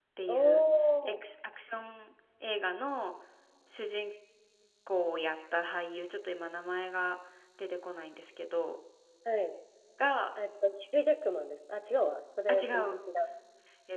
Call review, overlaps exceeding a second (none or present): none